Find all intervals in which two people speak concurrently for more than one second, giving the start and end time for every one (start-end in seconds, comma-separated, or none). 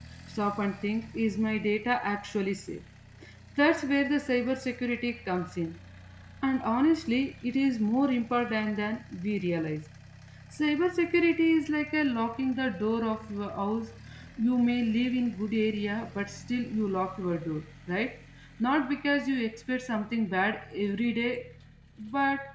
none